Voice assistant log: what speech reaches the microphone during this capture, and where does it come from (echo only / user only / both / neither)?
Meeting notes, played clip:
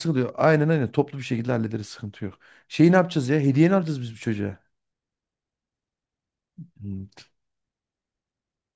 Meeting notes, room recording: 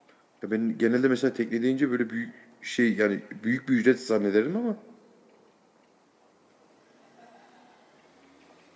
user only